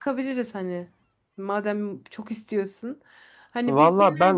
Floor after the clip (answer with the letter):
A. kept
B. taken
B